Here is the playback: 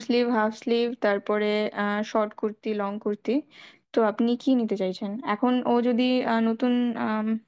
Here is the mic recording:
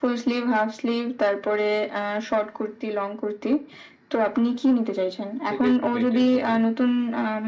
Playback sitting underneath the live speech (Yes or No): No